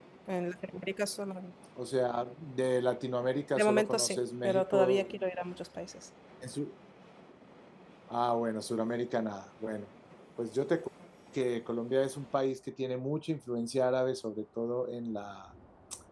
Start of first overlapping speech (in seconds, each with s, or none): 3.6 s